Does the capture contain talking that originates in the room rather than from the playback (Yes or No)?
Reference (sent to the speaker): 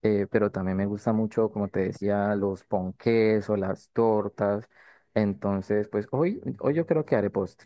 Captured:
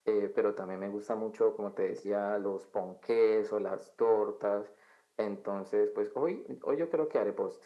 No